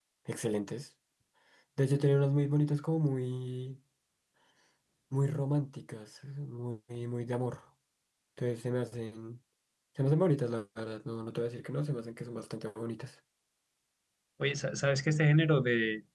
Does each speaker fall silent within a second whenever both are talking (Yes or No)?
Yes